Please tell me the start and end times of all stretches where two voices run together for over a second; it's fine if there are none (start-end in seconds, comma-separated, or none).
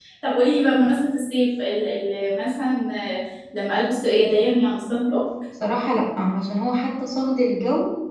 none